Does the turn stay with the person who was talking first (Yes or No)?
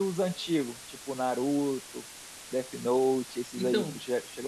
No